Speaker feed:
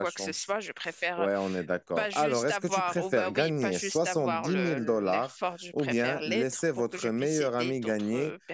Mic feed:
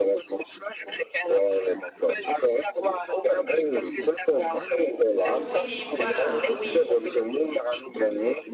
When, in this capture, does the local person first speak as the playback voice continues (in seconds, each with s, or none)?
5.2 s